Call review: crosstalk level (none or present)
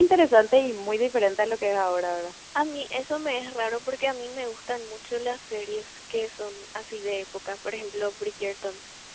none